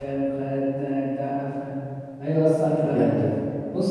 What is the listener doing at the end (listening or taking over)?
listening